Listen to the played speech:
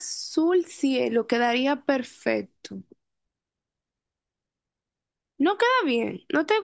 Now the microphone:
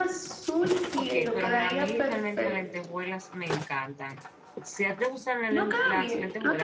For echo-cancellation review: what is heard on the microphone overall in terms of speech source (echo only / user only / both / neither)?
both